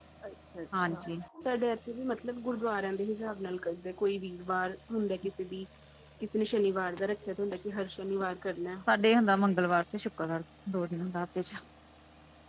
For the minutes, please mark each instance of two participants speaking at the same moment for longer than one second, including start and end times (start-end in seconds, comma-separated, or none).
none